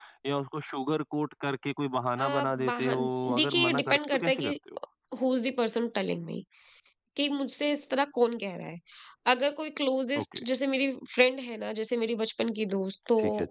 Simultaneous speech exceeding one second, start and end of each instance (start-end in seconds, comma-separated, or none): 2.2-4.6